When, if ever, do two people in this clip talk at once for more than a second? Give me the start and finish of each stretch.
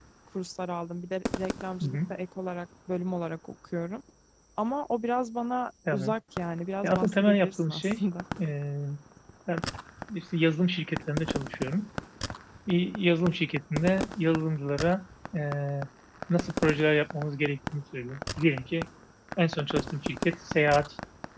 6.8-8.0

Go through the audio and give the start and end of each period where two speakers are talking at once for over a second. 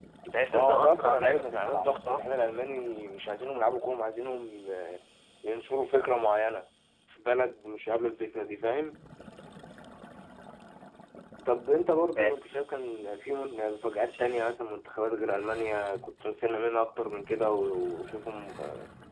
0.5-2.2

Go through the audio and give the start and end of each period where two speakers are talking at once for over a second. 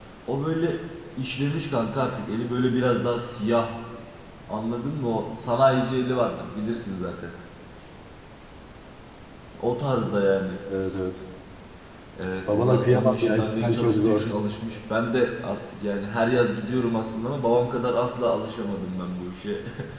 12.5-14.3

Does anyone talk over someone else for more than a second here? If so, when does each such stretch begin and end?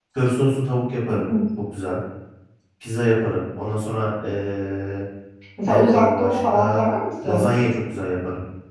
5.6-6.8

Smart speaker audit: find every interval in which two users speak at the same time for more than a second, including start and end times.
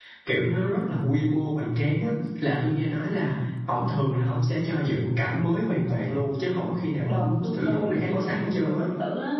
7.0-8.8

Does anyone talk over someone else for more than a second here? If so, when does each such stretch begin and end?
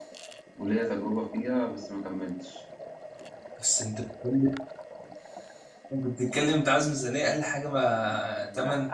none

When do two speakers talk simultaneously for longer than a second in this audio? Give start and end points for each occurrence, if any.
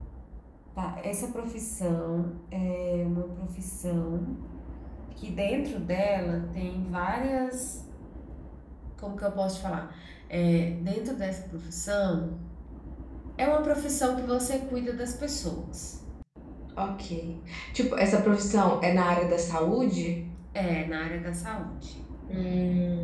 none

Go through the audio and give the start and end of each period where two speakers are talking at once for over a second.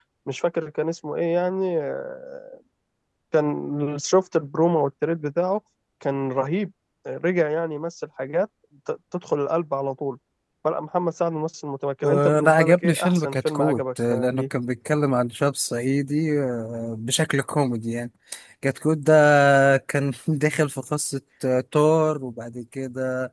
12.0-14.4

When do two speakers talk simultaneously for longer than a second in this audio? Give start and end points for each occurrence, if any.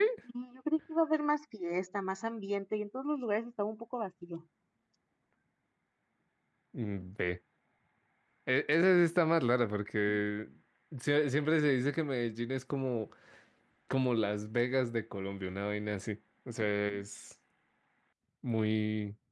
none

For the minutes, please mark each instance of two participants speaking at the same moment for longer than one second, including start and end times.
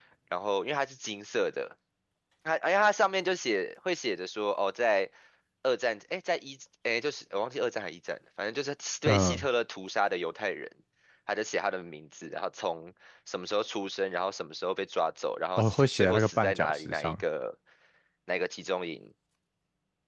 15.6-17.1

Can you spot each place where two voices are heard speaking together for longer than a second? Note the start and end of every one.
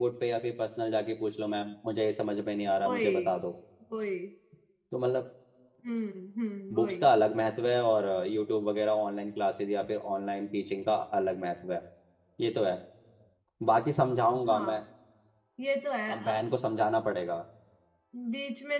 none

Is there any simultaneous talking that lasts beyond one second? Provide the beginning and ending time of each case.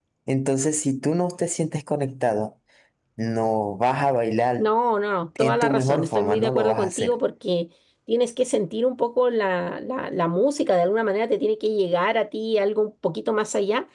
5.4-7.2

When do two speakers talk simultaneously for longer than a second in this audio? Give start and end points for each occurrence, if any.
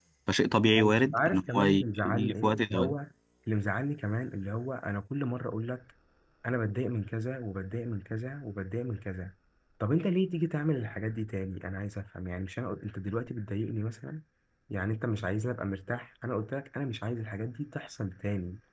0.8-2.9

